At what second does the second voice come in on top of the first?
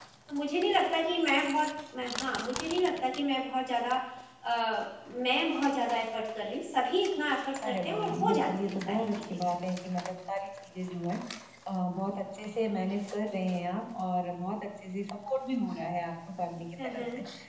8 s

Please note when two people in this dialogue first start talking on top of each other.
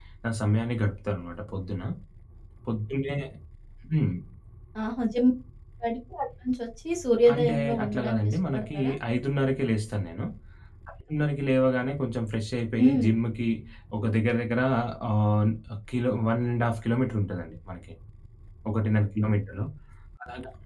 7 s

